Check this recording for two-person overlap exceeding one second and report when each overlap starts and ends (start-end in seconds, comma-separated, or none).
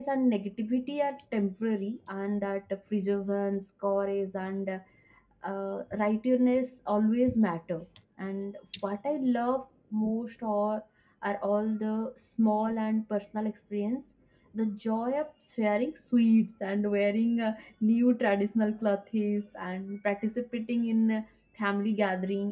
none